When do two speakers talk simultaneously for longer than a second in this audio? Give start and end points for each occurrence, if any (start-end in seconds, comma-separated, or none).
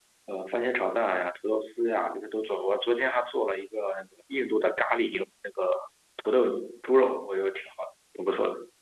none